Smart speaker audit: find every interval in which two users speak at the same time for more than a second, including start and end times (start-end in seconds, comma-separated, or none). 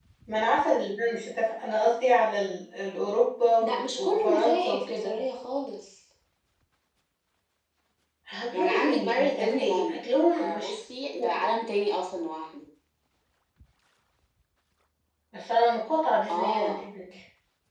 3.6-5.1, 8.5-10.7